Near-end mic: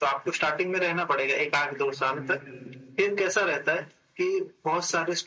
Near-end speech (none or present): present